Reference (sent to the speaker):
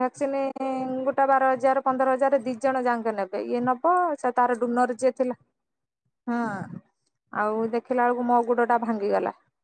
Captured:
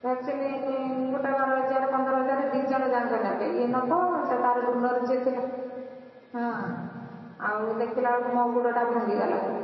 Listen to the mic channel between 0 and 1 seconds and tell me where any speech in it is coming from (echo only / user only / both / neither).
echo only